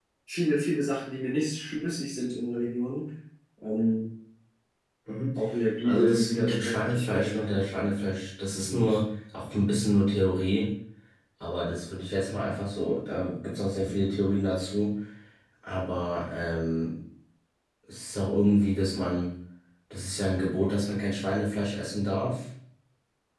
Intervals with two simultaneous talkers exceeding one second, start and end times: 5.8-7.7

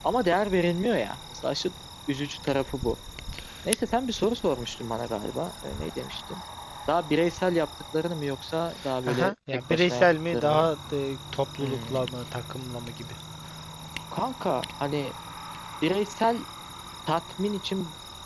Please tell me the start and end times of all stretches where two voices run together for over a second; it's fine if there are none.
9.1-10.7

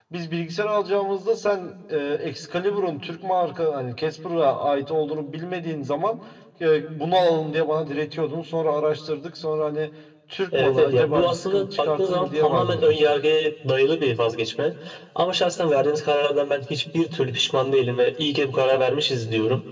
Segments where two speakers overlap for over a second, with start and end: 10.6-13.0

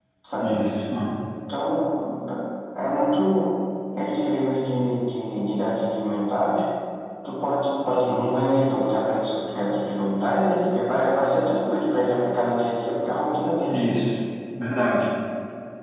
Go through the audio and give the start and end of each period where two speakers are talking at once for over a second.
none

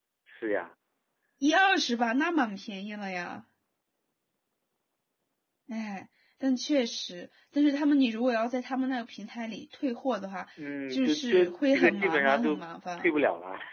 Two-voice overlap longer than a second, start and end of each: 10.9-12.6

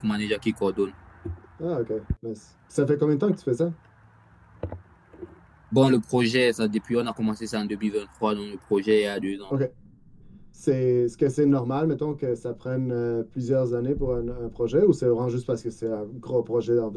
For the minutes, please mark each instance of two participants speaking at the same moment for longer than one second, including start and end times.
none

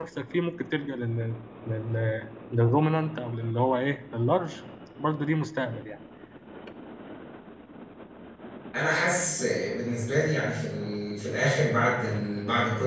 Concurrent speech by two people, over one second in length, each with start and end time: none

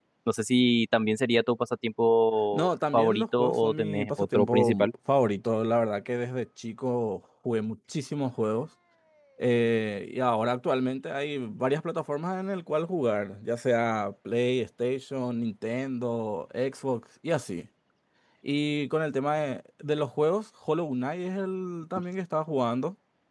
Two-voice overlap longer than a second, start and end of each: 2.5-4.9

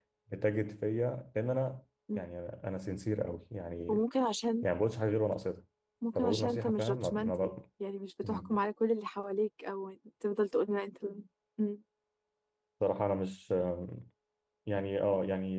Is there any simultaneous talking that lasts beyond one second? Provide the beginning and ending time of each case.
6.2-7.5

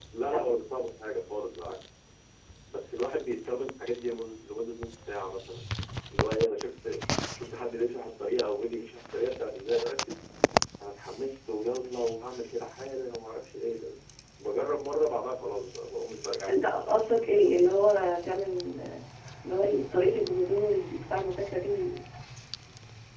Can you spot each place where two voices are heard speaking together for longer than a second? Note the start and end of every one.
16.5-17.8

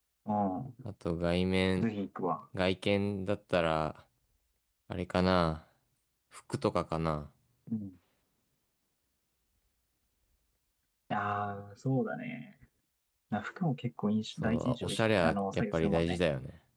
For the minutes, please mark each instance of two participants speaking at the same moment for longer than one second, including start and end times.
14.4-16.2

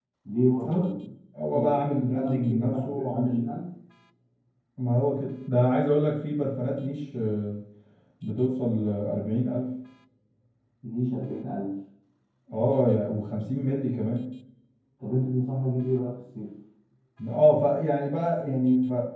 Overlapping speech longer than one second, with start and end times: 1.5-3.5

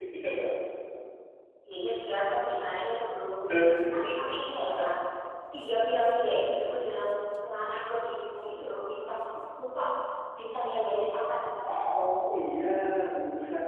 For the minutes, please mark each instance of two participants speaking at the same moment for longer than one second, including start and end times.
none

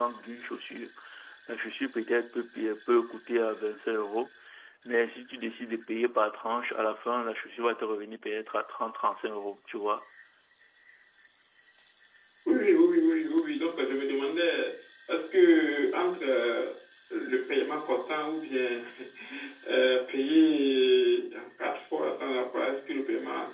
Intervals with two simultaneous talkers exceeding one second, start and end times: none

